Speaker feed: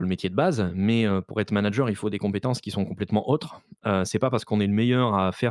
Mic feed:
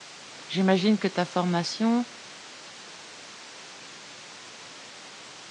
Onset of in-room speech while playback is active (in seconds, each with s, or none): 0.5 s